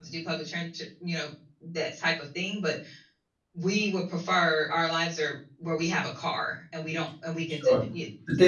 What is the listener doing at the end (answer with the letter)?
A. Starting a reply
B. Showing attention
A